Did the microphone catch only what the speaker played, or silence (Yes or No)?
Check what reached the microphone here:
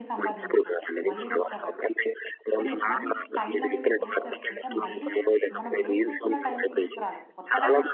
No